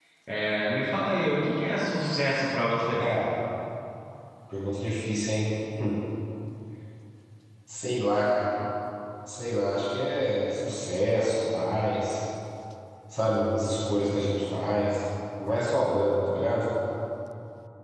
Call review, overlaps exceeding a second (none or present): none